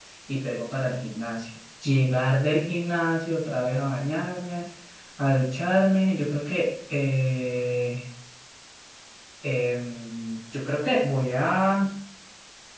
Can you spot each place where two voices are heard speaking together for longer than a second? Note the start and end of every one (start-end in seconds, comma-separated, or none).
none